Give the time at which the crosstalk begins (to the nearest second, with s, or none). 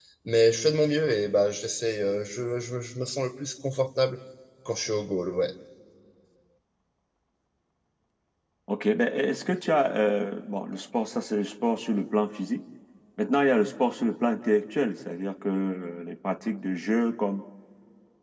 none